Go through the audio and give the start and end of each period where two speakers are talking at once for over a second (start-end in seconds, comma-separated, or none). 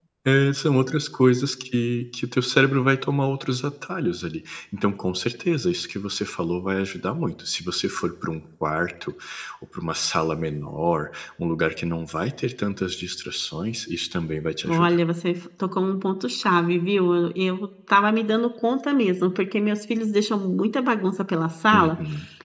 none